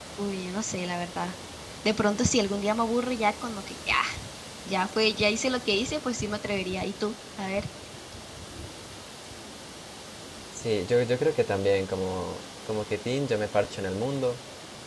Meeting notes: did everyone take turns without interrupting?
Yes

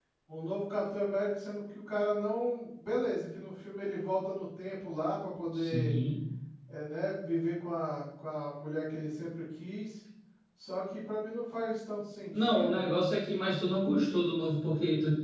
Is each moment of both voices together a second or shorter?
Yes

